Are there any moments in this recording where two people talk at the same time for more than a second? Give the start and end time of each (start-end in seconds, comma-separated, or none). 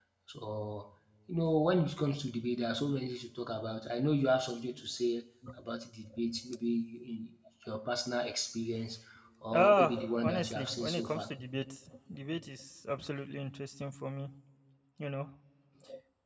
9.5-11.3